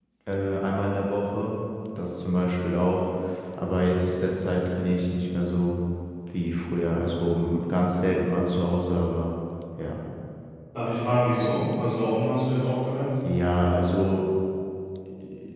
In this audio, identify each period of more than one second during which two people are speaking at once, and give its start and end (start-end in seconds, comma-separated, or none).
none